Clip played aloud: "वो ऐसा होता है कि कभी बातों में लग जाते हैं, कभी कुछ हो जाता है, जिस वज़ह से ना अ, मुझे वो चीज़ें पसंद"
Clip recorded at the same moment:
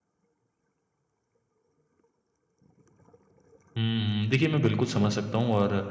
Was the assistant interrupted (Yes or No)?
Yes